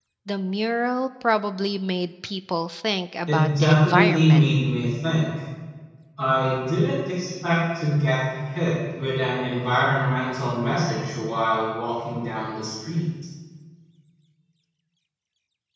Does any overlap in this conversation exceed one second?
Yes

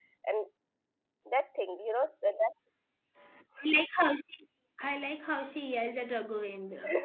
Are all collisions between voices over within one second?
Yes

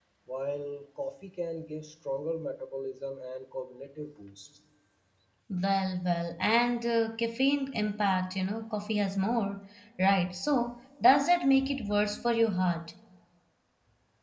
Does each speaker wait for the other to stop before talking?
Yes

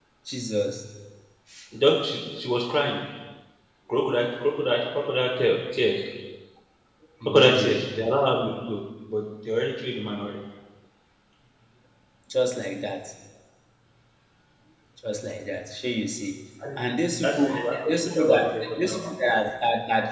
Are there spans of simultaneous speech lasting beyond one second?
Yes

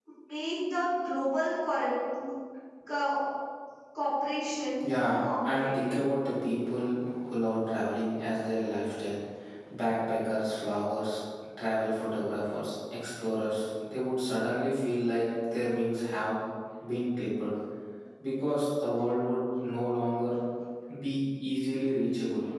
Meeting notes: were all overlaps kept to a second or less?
No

